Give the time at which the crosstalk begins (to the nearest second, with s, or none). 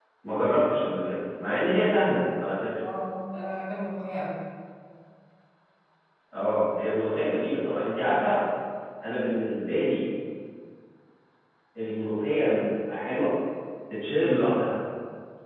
none